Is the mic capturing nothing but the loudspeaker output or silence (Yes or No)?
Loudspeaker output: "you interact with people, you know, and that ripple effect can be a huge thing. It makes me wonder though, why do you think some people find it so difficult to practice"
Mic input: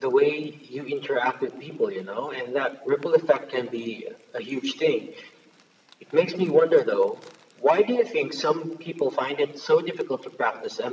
Yes